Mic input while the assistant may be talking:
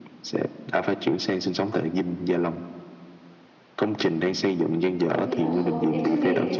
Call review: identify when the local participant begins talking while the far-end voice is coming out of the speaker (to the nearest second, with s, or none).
5 s